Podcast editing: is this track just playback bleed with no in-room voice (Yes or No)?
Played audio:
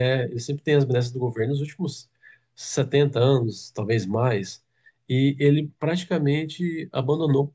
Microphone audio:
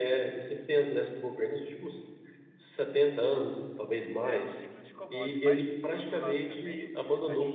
No